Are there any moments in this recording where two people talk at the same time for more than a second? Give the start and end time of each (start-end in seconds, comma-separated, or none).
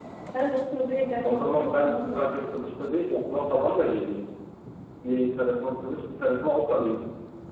1.2-2.5